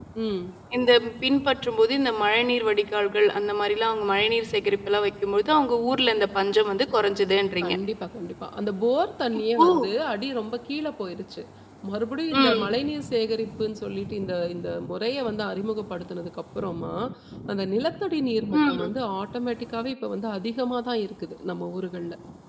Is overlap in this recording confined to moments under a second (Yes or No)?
Yes